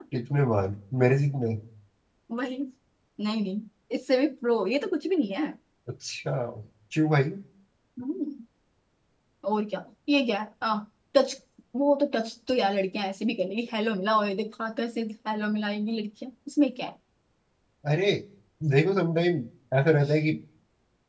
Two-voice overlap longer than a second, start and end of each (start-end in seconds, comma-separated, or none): none